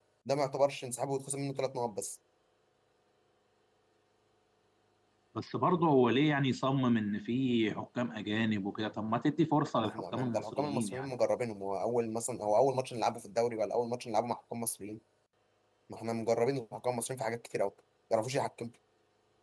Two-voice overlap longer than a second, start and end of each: 9.8-11.1

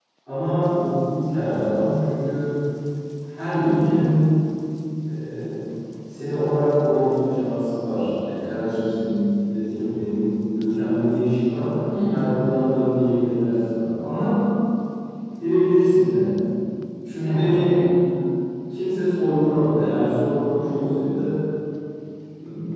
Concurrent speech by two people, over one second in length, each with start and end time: none

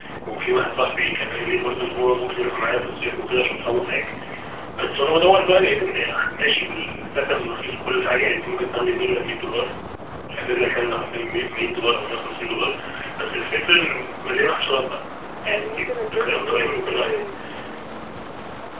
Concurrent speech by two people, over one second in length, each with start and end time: 15.4-17.2

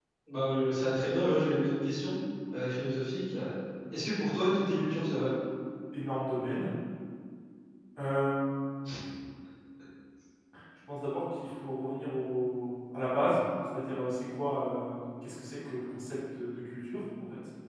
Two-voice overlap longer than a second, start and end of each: none

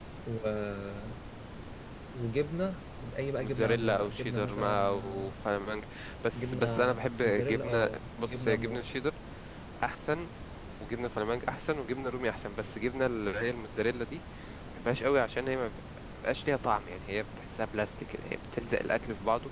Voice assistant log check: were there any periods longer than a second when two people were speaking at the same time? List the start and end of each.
3.4-5.3, 6.3-8.8

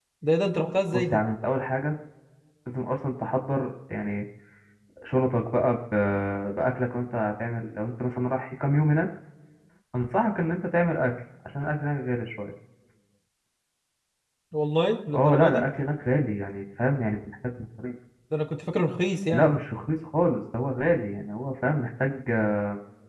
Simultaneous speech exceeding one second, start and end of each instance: none

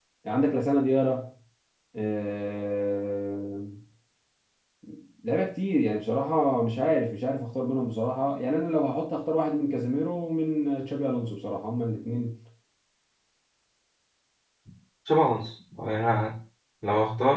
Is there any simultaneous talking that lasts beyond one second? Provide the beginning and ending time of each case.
none

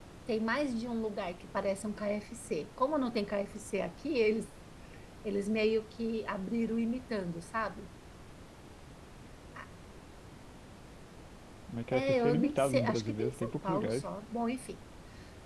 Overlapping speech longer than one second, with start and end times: 11.9-14.0

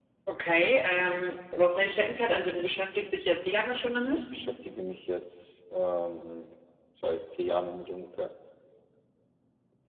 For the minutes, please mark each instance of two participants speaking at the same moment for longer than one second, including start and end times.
none

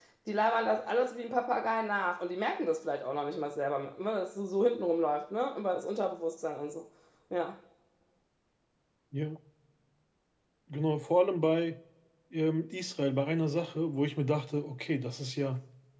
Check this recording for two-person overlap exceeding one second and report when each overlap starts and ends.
none

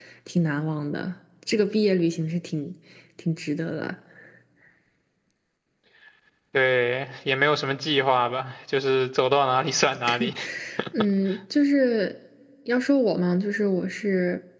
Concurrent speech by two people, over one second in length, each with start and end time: none

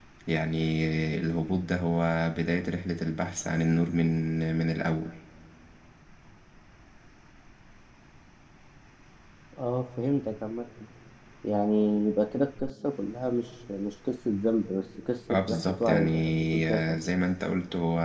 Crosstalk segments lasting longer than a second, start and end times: 15.3-17.0

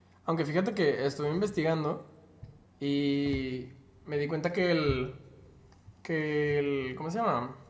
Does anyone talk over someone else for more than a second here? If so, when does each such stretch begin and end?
none

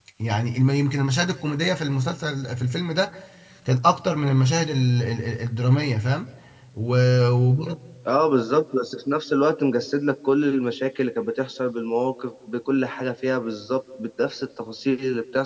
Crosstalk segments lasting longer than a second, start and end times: none

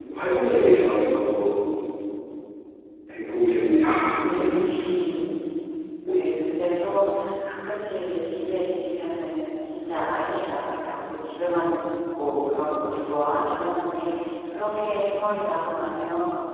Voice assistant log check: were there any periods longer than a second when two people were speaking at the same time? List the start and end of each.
none

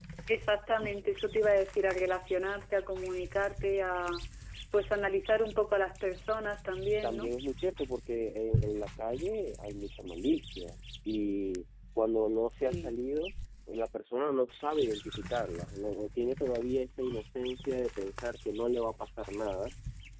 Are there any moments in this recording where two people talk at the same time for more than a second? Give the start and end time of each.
none

